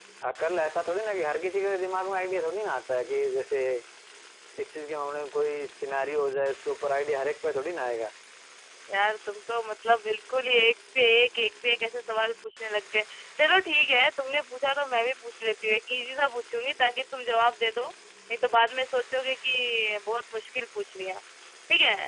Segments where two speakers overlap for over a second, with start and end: none

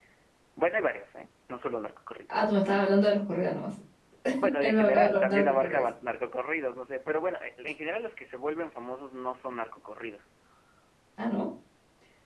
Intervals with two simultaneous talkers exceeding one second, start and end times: 4.6-5.8

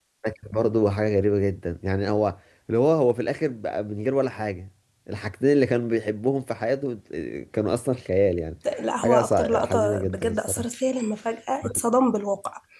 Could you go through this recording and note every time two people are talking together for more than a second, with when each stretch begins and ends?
9.0-10.7

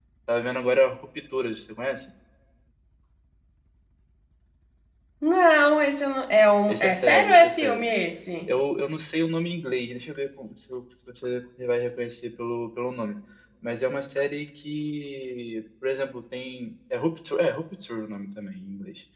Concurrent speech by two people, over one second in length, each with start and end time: 6.7-7.9

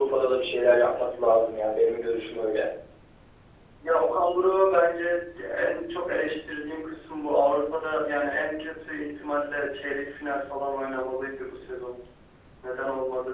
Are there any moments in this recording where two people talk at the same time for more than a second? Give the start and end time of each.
none

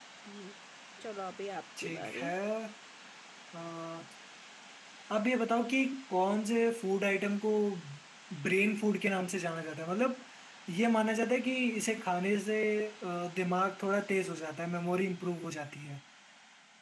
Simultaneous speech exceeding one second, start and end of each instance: none

